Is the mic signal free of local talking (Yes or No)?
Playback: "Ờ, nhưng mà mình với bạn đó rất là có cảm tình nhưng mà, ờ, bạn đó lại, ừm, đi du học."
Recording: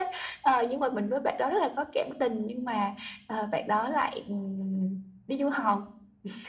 Yes